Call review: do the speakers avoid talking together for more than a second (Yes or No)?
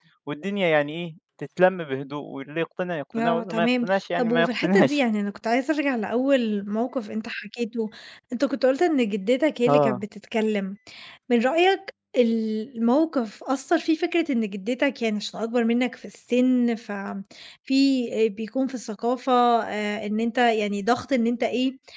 No